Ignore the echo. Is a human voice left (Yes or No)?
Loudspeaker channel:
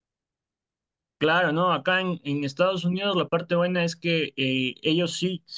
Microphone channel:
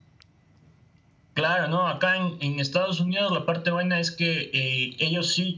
No